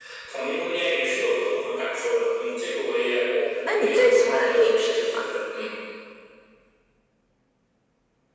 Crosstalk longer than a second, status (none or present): present